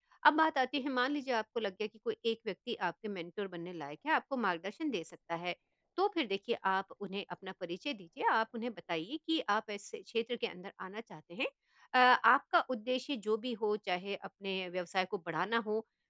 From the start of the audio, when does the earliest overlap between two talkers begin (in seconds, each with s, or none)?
none